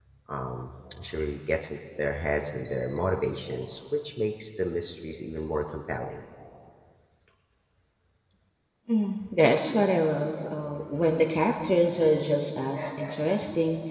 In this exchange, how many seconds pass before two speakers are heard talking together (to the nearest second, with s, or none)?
none